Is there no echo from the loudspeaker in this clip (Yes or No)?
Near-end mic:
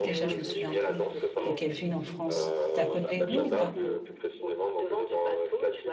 No